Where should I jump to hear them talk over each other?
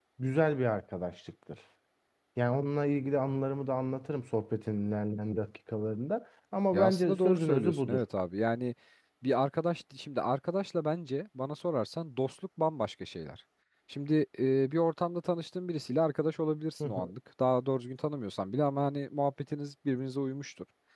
7 s

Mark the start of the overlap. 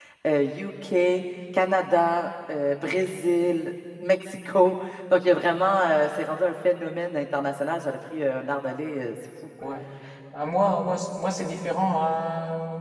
none

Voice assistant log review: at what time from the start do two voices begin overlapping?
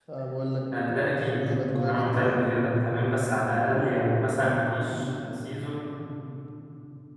1 s

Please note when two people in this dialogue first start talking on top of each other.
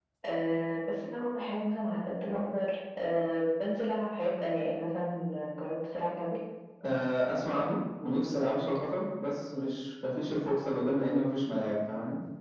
none

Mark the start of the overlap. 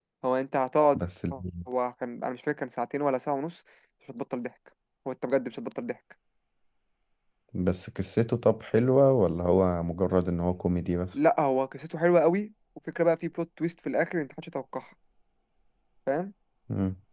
none

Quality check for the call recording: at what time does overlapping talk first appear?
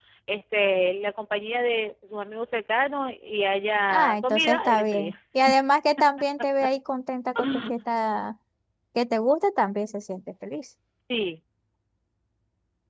4 s

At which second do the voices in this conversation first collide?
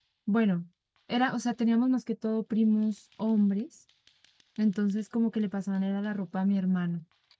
none

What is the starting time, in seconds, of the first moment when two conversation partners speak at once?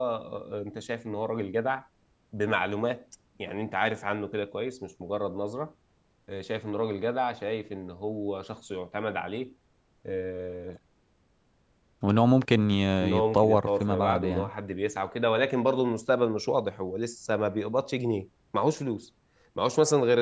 13 s

